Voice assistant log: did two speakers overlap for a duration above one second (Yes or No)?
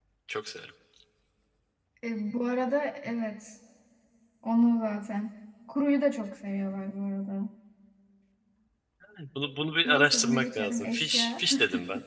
Yes